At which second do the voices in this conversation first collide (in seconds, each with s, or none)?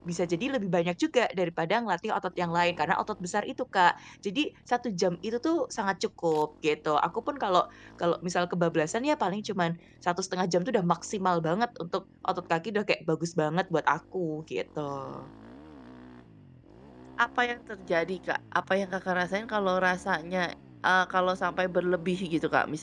none